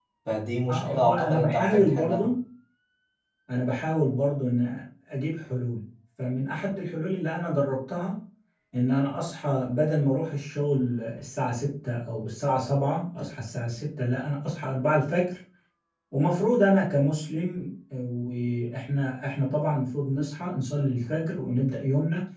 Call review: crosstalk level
present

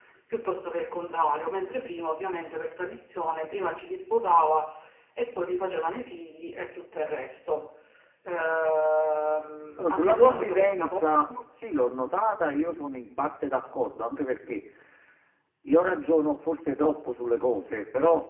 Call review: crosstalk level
present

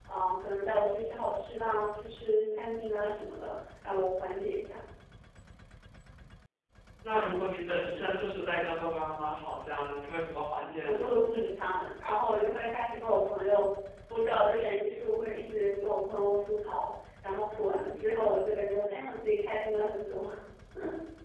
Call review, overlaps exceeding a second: none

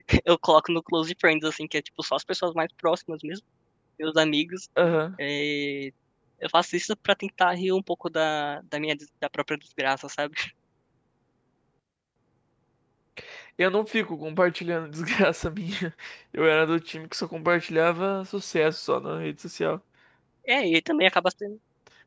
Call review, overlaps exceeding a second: none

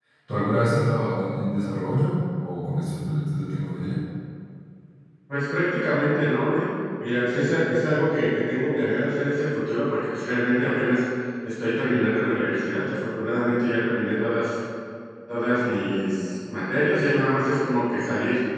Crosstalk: none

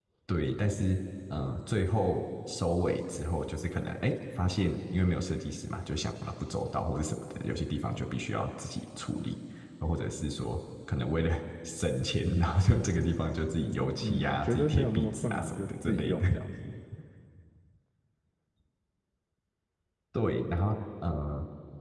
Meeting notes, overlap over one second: present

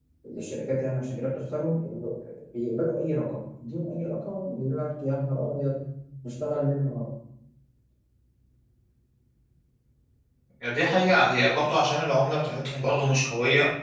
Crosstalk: none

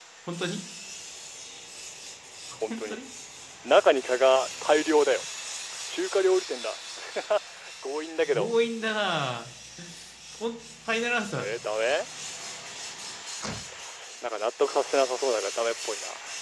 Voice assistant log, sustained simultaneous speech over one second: none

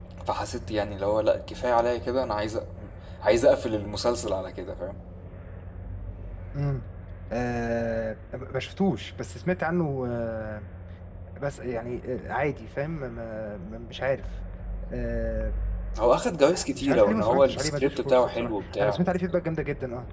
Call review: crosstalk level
present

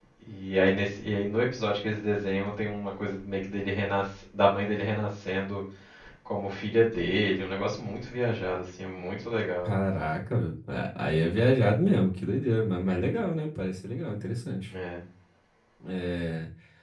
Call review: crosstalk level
none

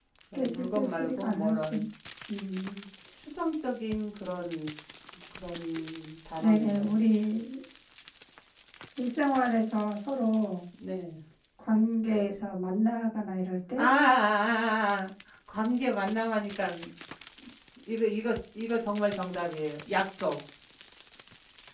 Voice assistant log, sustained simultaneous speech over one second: present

